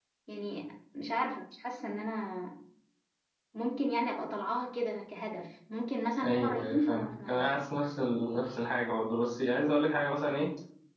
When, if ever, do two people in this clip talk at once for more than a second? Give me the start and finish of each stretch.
6.2-7.4

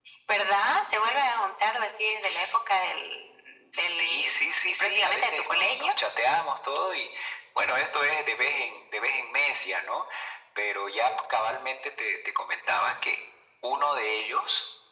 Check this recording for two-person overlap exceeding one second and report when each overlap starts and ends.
3.7-5.9

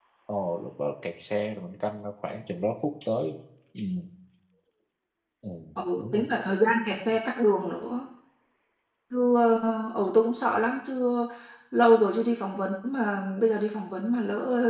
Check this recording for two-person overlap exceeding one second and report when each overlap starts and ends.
none

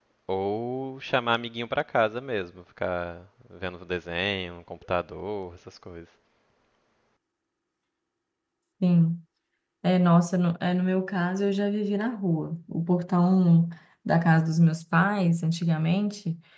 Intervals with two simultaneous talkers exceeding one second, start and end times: none

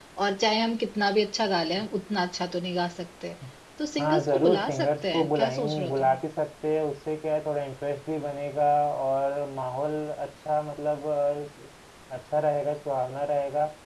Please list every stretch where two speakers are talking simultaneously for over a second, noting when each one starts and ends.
4.0-6.2

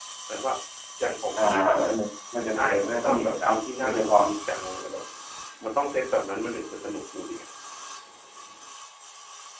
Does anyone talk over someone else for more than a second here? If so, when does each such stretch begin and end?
2.5-4.2

